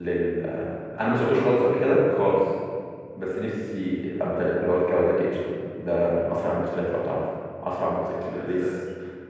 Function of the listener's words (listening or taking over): listening